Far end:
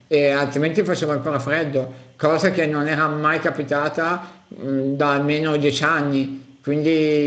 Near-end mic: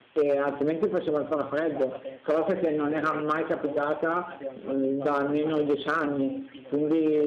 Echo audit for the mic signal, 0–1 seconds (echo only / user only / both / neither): echo only